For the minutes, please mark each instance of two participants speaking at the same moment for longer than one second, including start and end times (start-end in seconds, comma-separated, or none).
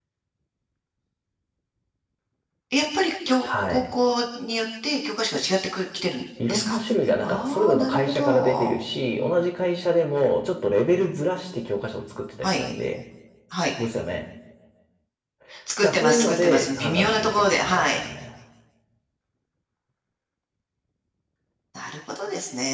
7.2-8.7, 15.9-18.0